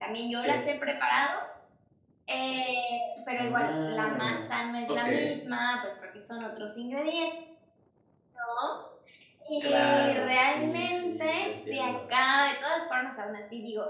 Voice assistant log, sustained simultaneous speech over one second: present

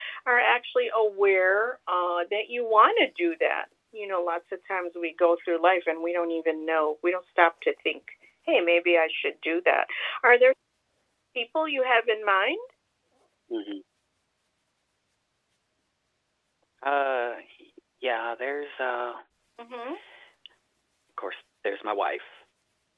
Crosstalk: none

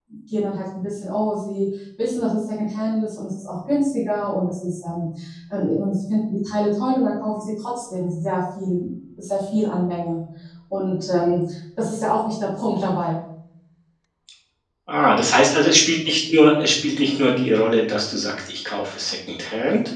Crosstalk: none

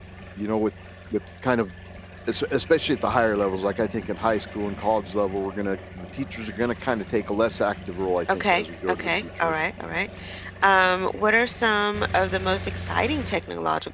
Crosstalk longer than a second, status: present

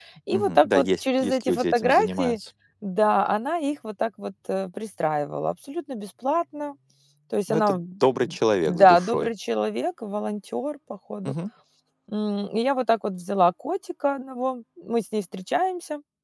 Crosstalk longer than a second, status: present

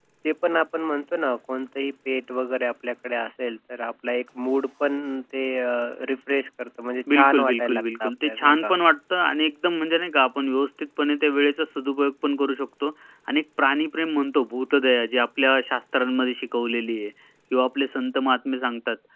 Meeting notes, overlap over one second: present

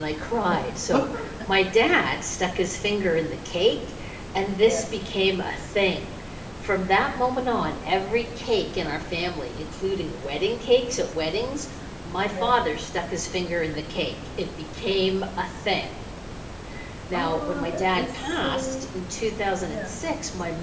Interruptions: present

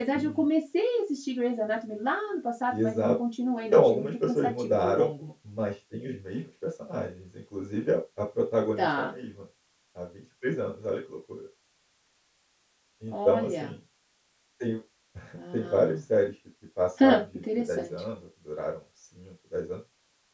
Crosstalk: present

